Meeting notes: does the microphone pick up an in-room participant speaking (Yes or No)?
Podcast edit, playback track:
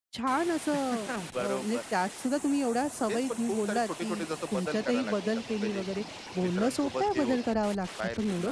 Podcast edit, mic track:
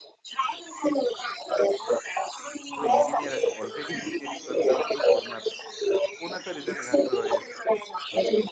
Yes